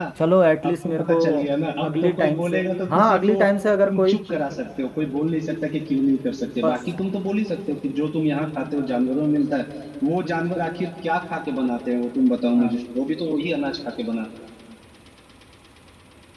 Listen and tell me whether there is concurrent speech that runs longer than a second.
Yes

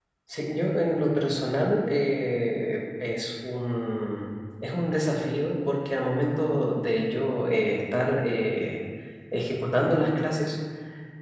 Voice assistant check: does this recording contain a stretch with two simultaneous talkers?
No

